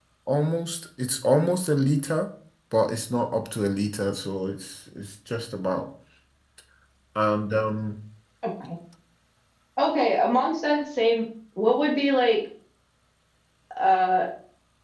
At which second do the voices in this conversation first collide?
none

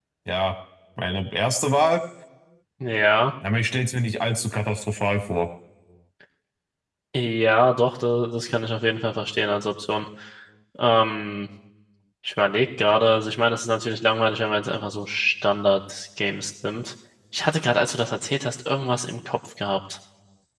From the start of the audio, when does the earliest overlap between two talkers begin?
none

